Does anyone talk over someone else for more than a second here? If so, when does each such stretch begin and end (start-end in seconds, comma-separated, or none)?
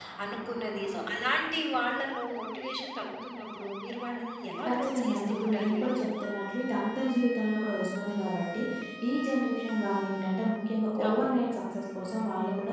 4.7-6.0